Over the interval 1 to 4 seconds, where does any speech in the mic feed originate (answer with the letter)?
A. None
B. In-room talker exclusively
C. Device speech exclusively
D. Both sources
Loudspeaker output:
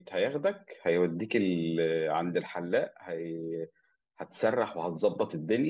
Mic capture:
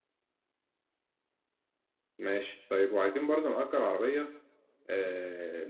B